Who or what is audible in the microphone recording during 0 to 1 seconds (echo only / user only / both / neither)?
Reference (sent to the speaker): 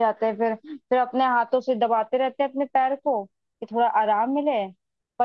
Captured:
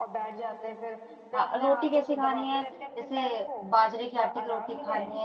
echo only